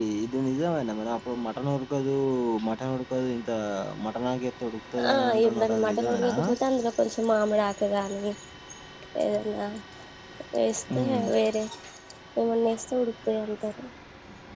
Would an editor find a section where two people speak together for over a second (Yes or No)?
Yes